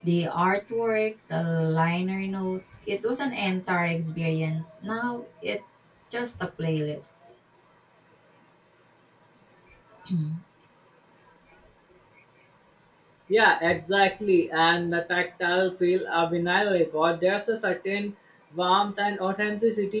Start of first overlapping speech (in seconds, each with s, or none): none